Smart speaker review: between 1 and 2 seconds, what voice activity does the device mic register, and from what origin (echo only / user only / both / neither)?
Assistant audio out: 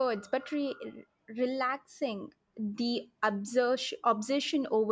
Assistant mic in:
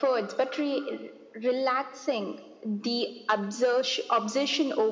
echo only